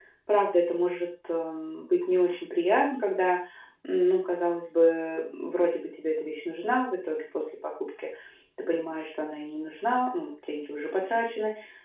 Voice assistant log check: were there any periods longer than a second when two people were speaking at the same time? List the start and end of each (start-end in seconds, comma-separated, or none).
none